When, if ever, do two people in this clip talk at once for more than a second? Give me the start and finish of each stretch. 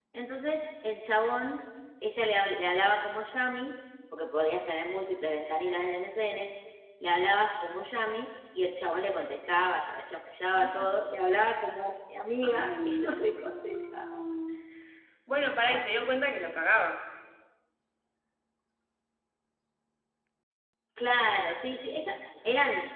12.4-14.2

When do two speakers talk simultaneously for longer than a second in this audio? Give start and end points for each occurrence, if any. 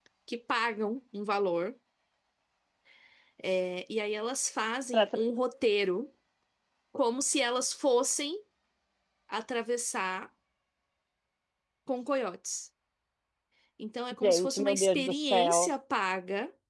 14.2-15.7

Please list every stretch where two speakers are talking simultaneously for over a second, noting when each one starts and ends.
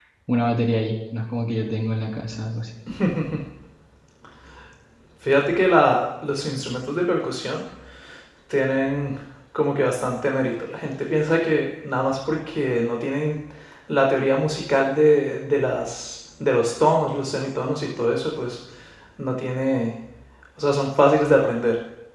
none

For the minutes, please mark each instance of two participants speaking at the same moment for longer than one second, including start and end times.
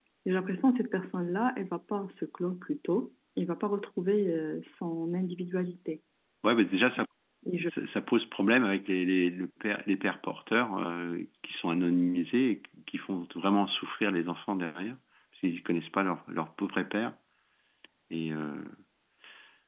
none

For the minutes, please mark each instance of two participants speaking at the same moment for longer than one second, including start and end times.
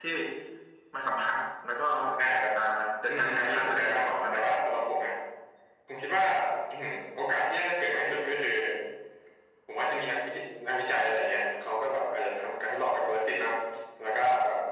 3.1-4.4

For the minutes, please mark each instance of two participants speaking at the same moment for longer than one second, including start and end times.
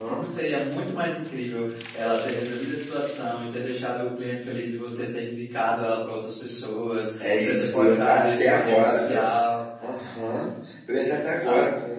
7.2-9.2

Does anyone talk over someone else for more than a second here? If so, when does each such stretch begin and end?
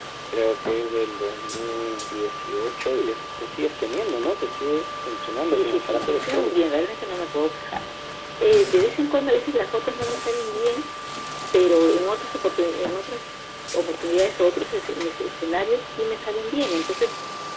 5.4-6.6

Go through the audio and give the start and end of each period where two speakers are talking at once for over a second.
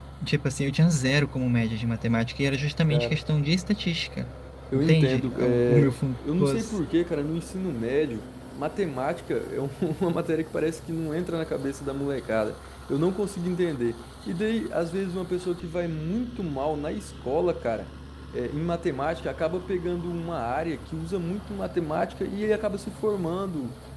4.7-6.0

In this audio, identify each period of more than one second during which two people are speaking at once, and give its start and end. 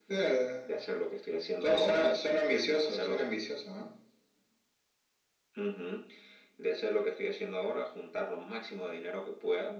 1.6-3.3

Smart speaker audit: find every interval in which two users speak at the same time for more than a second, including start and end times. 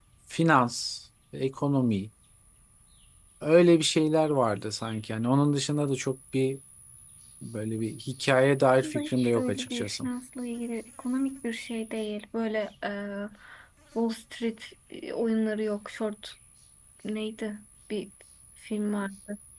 8.8-10.1

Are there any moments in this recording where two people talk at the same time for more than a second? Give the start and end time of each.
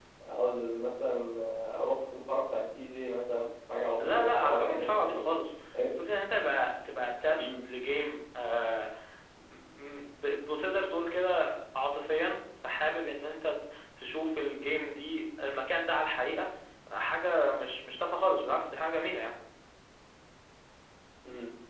4.0-5.2

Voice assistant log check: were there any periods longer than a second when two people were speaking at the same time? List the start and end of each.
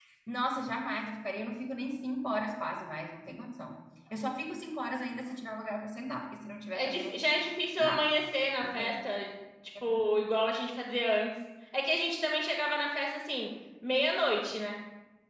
none

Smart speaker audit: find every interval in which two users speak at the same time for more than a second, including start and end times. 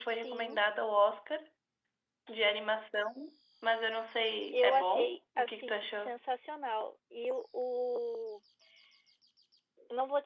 4.5-6.1

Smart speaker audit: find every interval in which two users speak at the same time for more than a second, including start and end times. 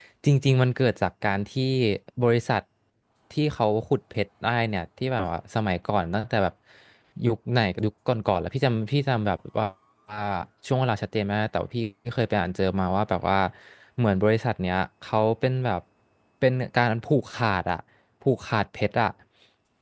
none

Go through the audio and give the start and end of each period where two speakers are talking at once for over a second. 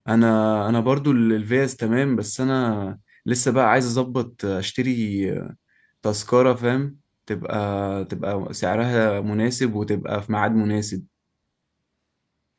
none

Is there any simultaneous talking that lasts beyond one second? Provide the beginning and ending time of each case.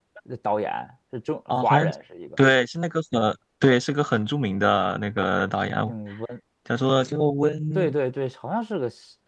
none

